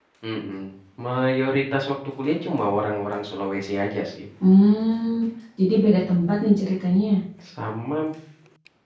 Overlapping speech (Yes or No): No